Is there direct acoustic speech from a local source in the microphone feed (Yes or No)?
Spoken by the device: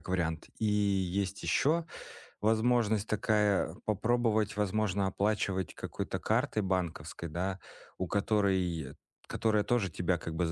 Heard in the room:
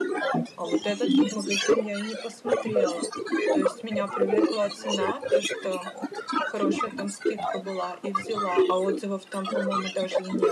Yes